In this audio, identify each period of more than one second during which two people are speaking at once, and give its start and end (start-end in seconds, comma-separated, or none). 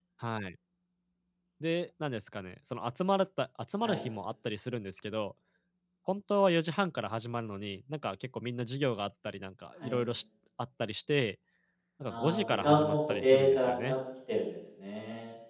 12.1-14.0